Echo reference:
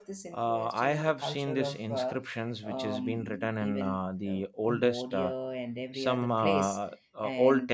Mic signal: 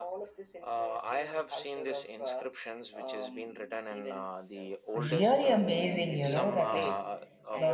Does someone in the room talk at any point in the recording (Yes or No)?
Yes